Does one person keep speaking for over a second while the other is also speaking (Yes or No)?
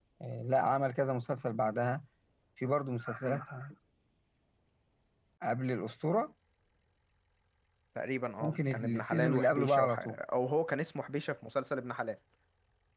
Yes